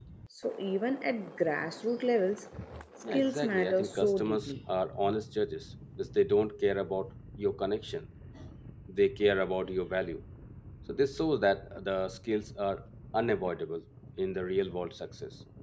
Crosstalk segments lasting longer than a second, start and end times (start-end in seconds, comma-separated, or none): 3.1-4.5